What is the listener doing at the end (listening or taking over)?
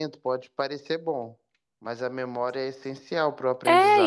taking over